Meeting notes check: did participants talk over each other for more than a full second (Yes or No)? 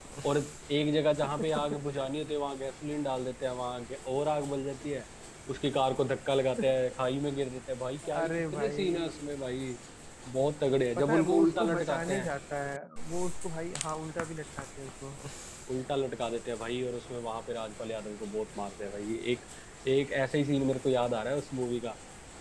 Yes